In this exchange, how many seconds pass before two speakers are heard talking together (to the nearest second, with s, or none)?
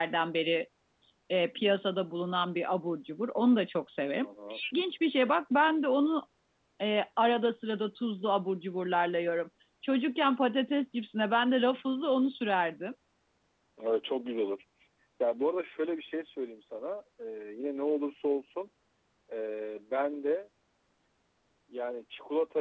none